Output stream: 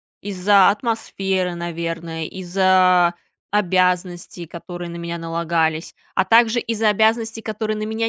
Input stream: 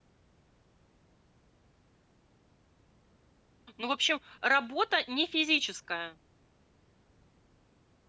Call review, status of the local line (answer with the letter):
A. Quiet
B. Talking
B